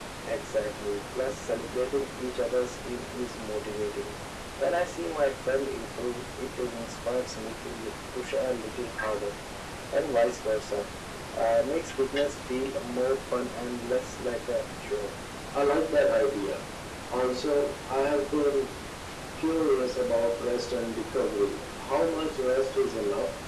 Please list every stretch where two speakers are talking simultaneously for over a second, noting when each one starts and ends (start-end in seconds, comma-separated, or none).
none